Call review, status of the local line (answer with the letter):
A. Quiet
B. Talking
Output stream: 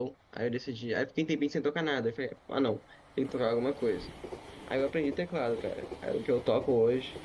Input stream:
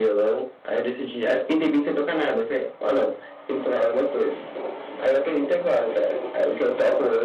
A